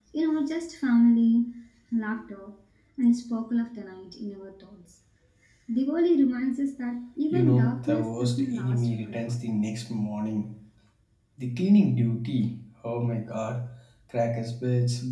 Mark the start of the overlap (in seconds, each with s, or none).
7.3 s